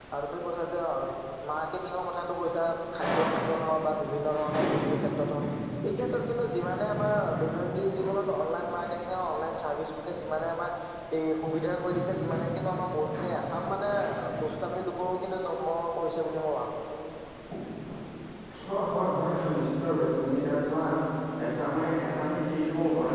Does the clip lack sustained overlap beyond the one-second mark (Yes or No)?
Yes